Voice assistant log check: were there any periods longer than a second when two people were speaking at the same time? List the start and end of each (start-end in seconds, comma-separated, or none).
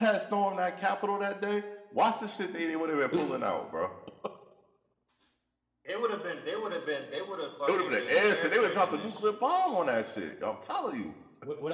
7.7-9.3